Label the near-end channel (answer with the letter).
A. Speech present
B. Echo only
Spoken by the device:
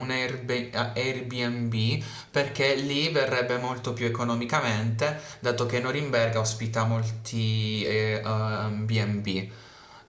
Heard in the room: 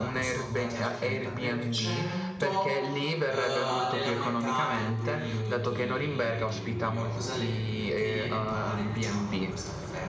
A